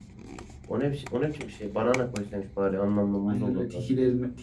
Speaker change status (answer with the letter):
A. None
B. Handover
B